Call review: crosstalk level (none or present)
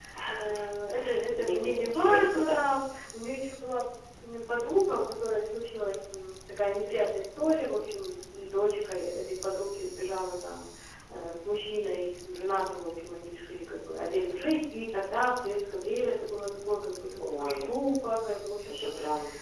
present